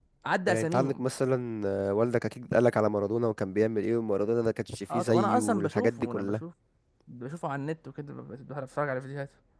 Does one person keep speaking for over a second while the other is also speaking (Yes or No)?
Yes